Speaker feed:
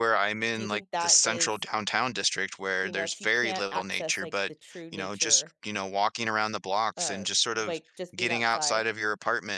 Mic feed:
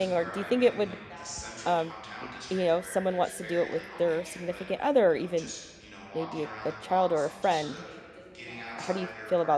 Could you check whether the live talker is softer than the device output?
No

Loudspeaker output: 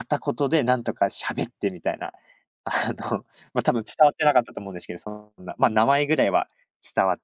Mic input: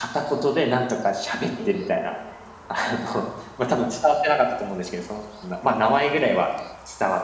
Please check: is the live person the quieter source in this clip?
Yes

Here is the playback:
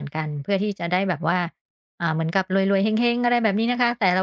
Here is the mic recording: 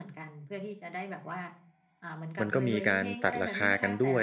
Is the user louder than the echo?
Yes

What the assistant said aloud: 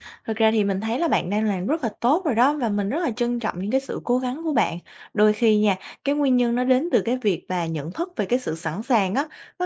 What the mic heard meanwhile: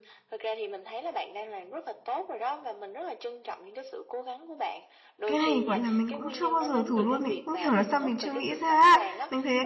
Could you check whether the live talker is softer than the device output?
No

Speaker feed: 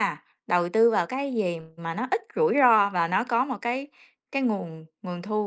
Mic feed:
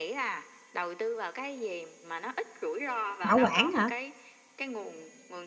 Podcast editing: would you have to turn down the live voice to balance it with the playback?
Yes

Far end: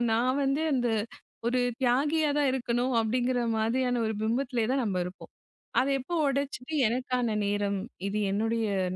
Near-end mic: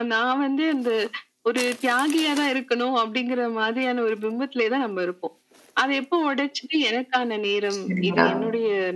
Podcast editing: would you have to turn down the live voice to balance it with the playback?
Yes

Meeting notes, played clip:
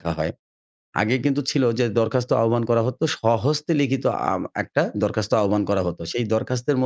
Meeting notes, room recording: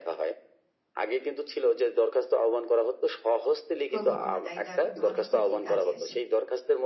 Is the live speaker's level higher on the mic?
No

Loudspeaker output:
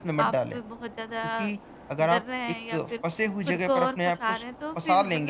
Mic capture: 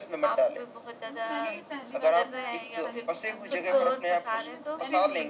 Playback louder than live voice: Yes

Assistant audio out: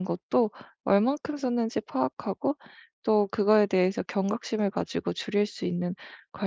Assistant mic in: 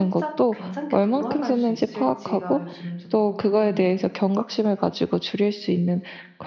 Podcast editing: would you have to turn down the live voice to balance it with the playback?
No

